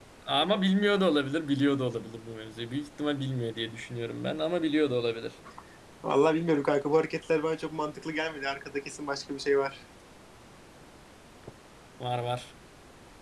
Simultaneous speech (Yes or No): No